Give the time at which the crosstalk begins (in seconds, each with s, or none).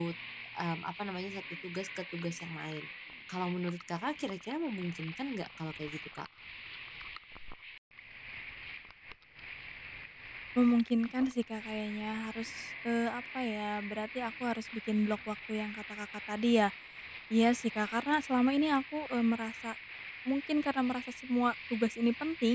none